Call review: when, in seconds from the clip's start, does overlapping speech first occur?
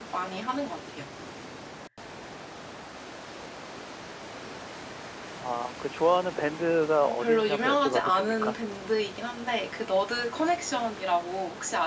7 s

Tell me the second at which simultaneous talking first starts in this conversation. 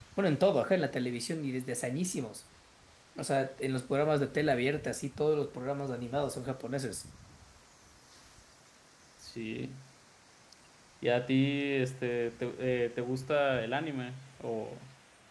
none

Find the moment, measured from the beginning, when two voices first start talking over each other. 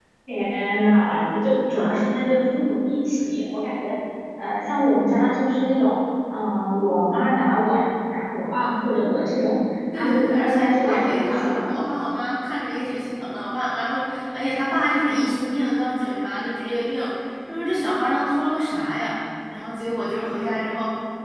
10 s

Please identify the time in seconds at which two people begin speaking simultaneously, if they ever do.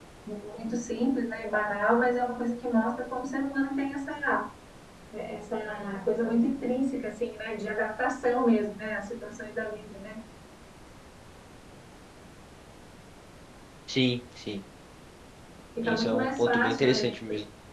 16 s

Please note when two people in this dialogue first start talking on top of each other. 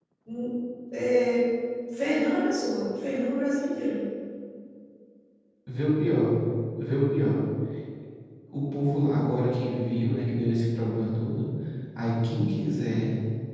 none

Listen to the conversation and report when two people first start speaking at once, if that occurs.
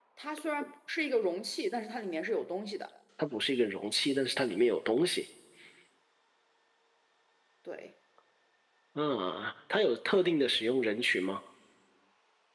none

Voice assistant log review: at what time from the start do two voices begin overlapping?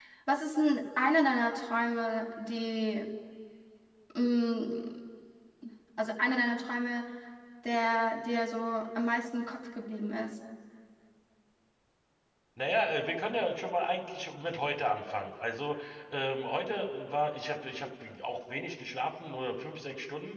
none

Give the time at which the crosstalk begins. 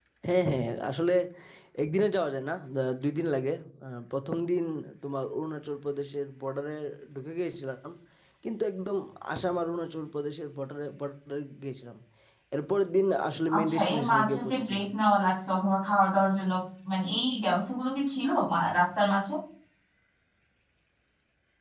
13 s

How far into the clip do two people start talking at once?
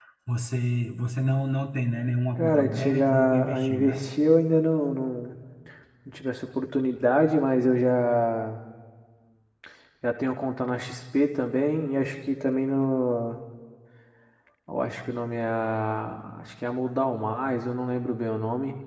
2 s

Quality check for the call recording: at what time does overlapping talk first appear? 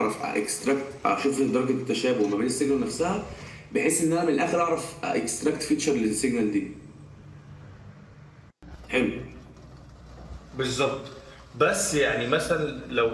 none

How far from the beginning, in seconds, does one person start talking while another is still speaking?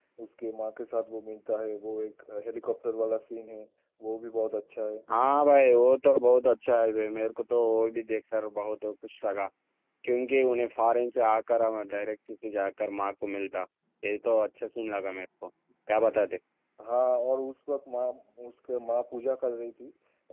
none

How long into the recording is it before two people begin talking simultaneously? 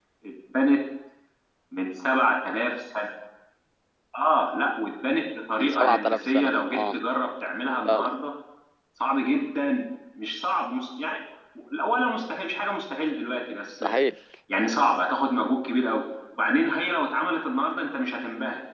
6 s

